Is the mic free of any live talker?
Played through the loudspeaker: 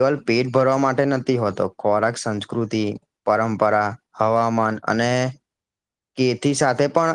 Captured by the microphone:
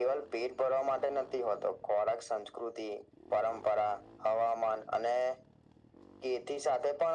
Yes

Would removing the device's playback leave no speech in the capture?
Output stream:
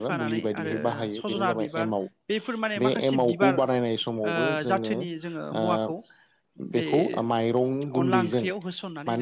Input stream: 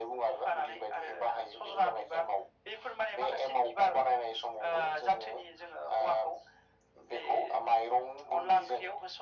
Yes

